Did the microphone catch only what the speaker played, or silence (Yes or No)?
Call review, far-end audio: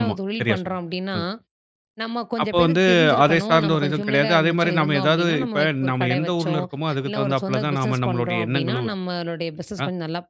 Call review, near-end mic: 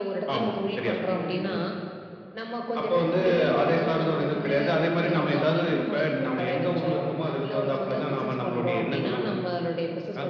No